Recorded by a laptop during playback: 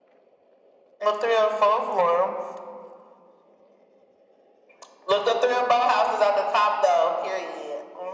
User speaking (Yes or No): No